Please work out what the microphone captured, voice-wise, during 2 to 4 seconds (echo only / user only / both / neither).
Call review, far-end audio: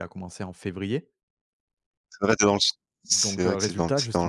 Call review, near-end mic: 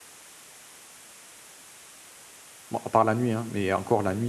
user only